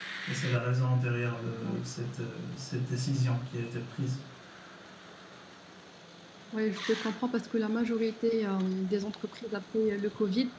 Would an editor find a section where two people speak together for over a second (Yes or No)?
No